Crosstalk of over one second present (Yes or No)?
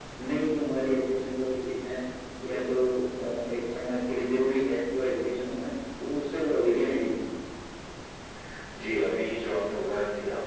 No